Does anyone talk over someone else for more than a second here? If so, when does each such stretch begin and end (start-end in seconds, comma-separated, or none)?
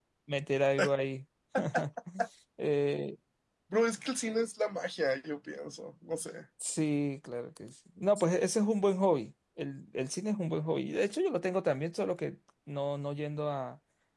none